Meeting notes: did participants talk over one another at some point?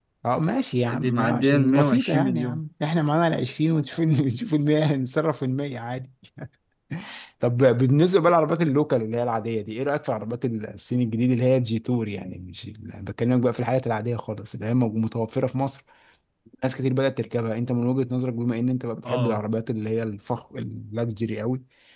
Yes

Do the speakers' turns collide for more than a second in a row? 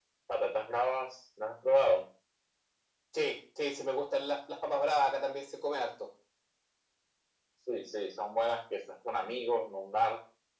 No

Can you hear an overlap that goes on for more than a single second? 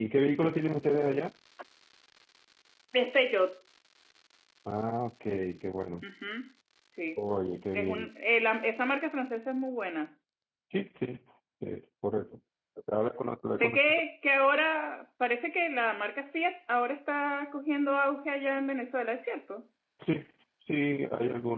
No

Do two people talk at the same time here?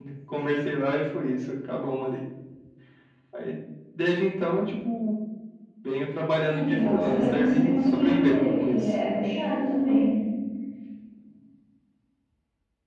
Yes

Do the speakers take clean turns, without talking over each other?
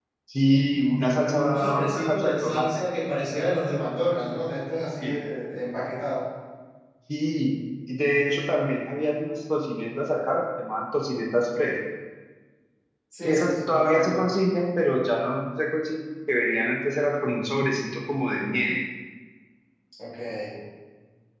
No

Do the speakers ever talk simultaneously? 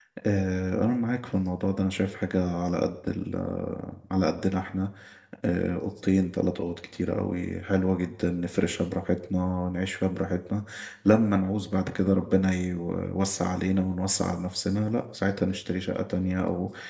No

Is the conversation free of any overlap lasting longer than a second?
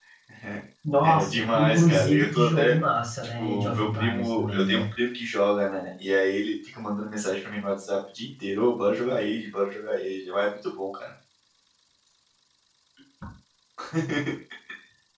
No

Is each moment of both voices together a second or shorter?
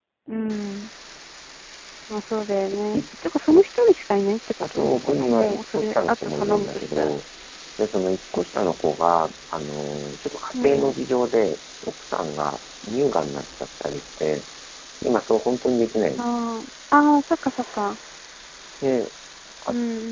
No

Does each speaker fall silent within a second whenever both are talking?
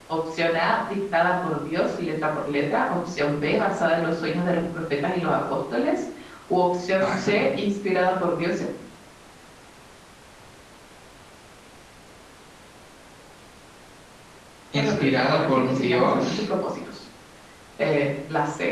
No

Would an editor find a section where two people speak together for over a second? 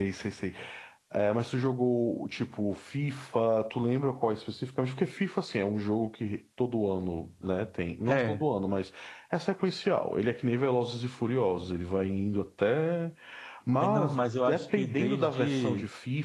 Yes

